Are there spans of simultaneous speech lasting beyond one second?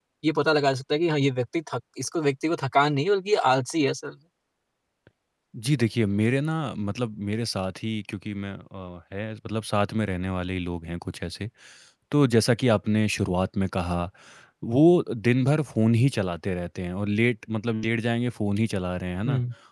No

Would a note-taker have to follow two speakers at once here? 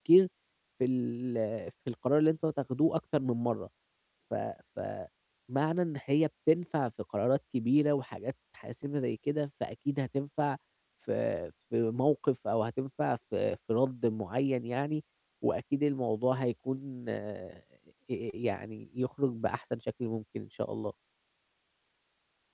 No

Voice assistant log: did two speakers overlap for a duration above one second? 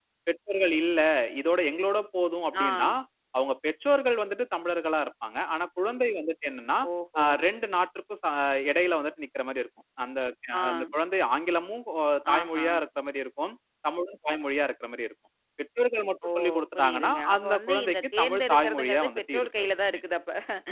Yes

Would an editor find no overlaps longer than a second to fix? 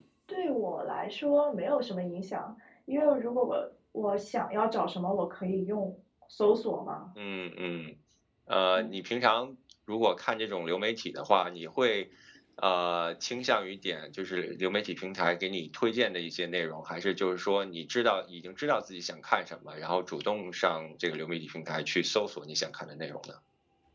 Yes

